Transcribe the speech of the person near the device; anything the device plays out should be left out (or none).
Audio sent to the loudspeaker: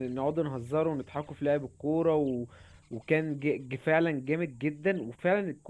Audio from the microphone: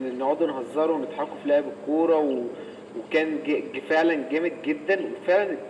none